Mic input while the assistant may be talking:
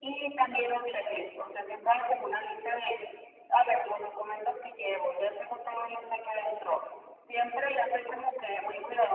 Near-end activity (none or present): none